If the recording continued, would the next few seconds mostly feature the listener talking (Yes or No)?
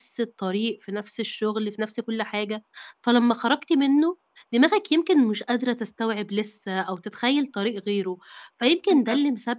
No